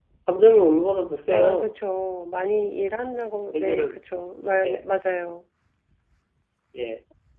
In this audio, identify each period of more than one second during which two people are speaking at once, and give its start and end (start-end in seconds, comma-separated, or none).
none